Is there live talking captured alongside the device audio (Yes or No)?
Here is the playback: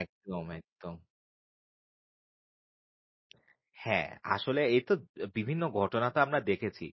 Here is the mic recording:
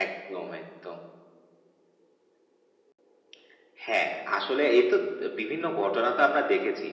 No